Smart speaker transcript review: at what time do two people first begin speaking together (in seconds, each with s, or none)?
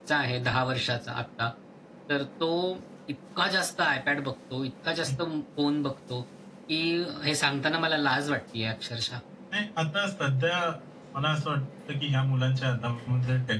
none